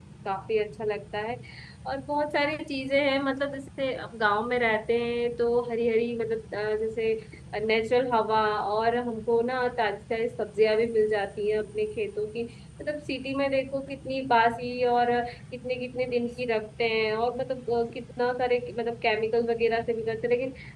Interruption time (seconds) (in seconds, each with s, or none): none